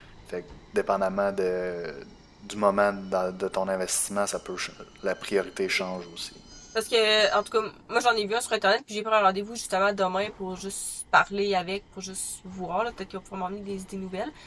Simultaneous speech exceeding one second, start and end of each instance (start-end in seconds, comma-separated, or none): none